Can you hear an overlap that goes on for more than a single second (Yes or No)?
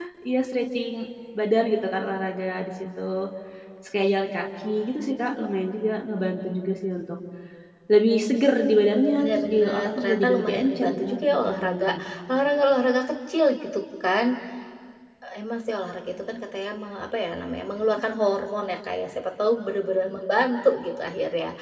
Yes